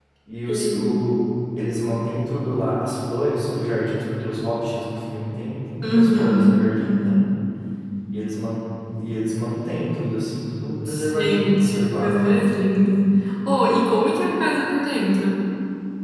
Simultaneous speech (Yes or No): Yes